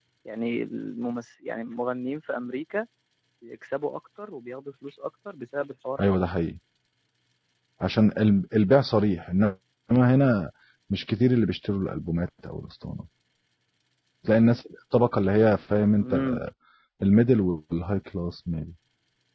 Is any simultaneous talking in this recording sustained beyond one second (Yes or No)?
No